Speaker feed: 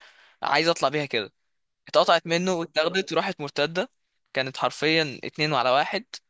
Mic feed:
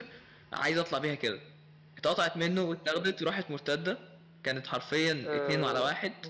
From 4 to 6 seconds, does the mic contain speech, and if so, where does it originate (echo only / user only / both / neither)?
both